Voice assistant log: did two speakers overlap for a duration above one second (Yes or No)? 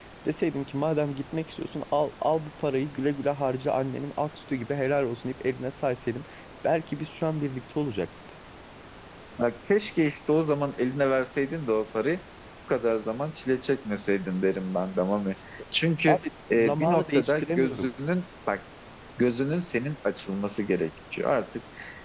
Yes